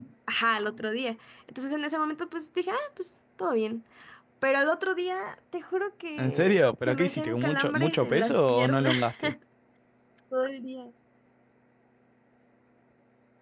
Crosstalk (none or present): present